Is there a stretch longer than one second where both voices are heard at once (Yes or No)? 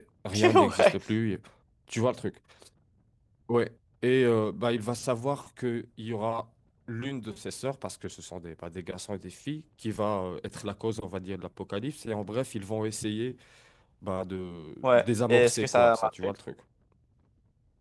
Yes